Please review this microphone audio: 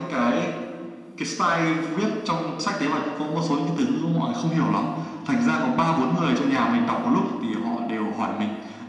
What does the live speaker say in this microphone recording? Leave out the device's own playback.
none

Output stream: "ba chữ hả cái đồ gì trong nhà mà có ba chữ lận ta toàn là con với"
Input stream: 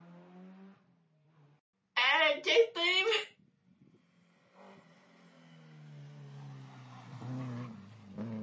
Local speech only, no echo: à trái tim

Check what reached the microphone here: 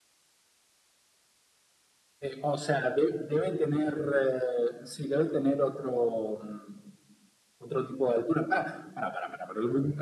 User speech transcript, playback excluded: none

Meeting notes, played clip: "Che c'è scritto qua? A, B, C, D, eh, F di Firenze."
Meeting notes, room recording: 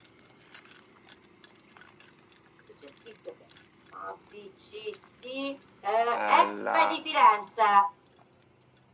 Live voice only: Eh, la...

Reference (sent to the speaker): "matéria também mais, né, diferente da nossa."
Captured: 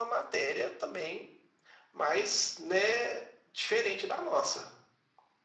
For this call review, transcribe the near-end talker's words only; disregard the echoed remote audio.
none

